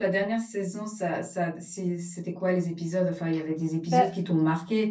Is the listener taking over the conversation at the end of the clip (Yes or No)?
No